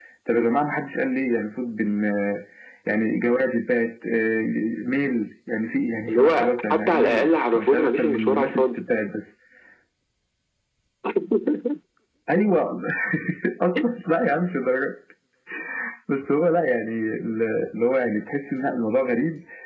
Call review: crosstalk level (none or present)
present